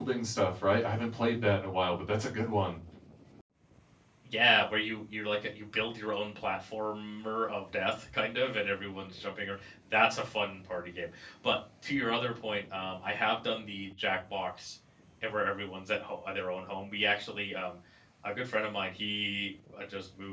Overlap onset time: none

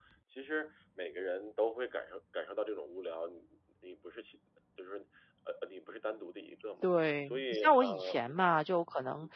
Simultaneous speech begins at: 7 s

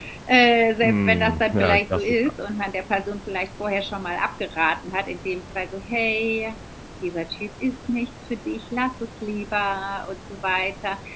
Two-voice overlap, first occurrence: 1 s

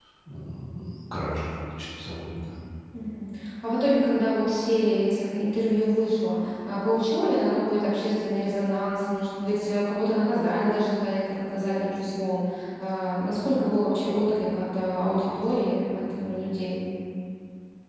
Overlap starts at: none

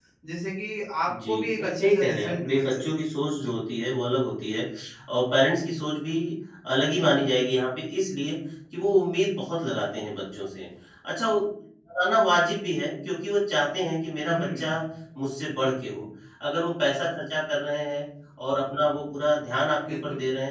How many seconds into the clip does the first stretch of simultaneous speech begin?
1 s

